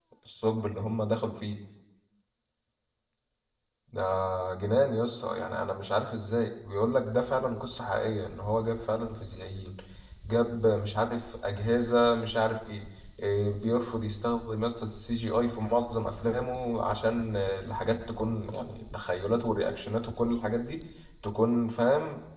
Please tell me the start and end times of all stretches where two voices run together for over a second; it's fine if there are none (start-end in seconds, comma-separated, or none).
none